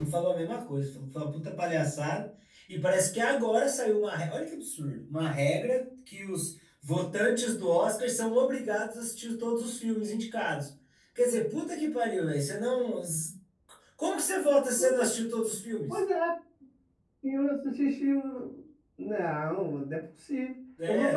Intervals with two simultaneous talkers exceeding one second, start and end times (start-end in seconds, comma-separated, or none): none